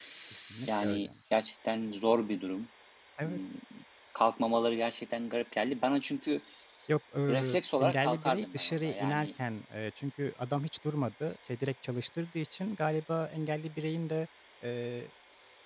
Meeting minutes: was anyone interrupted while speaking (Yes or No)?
Yes